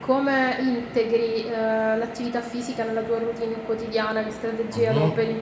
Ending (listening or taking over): taking over